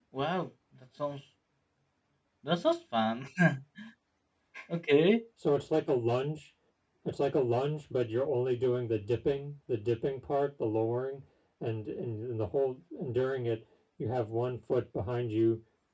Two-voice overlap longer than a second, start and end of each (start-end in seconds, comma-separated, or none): none